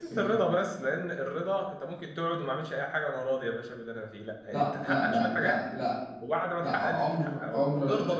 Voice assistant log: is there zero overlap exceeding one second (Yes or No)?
No